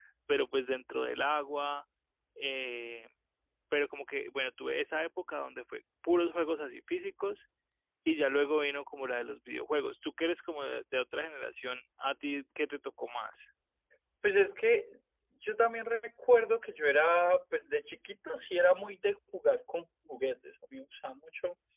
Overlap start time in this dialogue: none

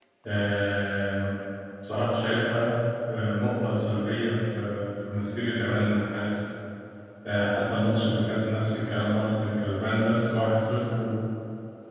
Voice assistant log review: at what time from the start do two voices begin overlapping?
none

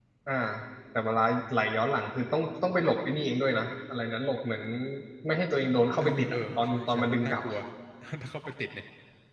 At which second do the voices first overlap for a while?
6 s

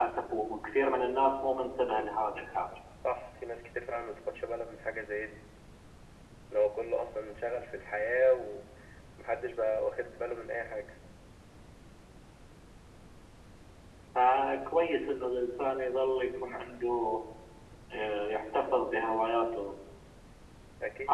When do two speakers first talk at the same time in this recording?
none

